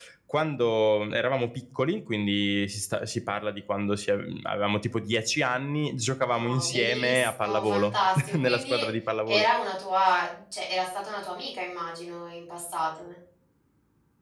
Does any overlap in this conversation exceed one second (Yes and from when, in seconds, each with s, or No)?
Yes, from 6.3 s